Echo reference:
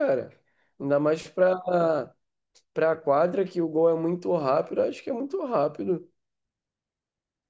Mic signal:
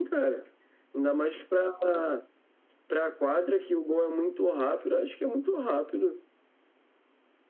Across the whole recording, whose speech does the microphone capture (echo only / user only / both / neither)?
echo only